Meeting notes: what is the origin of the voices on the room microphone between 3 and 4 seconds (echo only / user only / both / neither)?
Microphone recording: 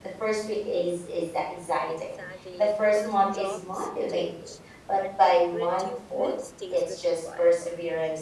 both